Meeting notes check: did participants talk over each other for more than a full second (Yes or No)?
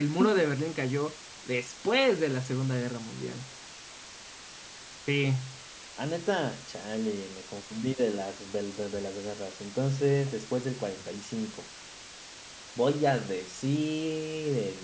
No